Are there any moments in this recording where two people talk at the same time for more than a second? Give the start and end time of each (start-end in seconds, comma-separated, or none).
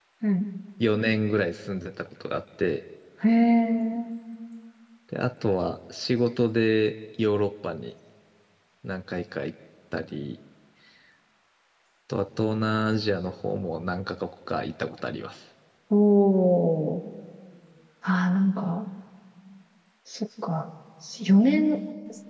none